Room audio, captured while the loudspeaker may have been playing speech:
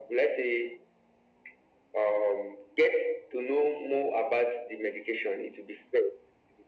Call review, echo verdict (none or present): present